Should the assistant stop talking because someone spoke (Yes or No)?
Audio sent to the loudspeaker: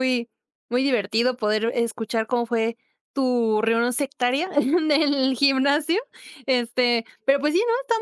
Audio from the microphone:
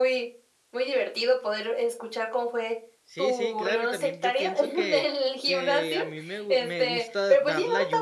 Yes